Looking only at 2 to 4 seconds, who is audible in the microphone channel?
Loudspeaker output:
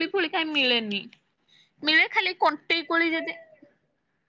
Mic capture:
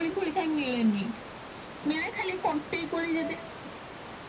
echo only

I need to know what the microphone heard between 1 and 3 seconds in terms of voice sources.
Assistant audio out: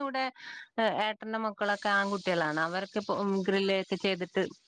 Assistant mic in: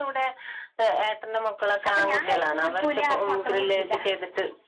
both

